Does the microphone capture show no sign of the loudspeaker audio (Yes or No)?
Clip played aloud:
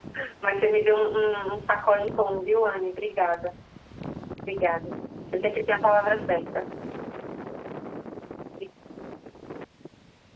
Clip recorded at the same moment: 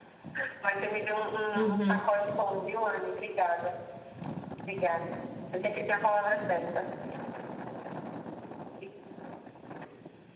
No